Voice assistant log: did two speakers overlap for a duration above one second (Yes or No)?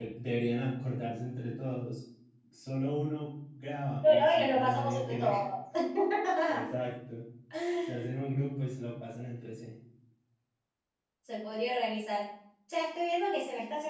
Yes